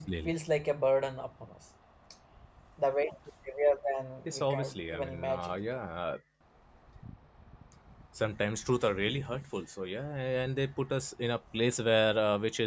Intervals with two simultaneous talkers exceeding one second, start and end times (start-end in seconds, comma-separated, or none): 4.2-5.6